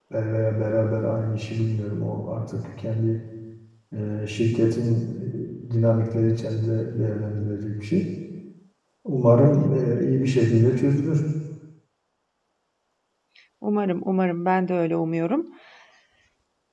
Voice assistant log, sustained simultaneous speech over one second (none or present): none